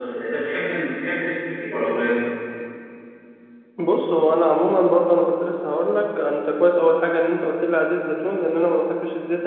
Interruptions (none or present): none